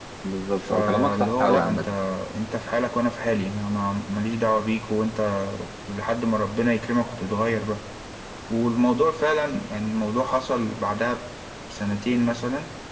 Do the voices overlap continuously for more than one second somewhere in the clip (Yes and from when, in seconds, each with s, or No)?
Yes, from 0.6 s